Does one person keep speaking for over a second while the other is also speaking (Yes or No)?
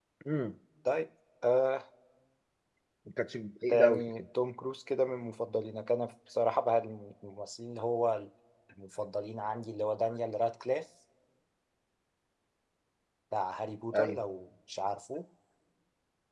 No